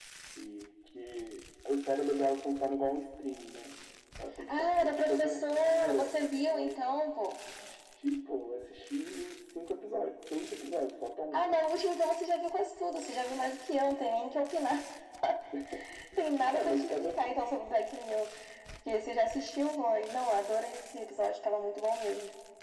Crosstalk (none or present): present